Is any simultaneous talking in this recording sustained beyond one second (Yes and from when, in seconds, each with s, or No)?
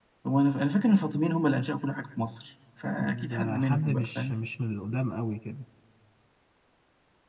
Yes, from 3.0 s